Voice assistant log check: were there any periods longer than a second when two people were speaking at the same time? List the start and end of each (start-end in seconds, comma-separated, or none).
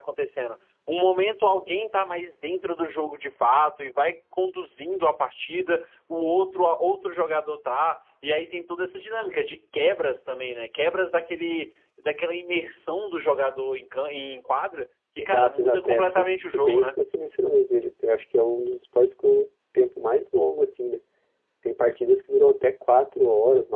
15.2-17.0